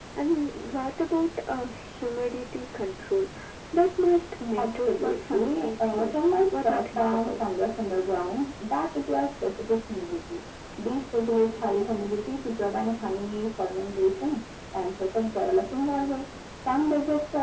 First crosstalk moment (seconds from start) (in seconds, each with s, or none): 4.6 s